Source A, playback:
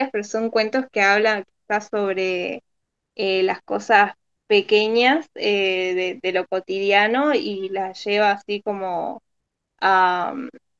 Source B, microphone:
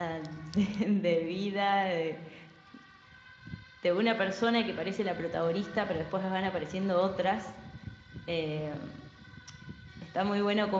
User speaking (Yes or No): Yes